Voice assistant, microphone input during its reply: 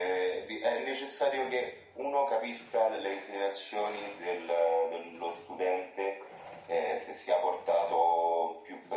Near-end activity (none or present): none